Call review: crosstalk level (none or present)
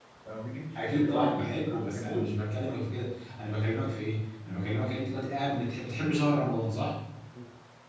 present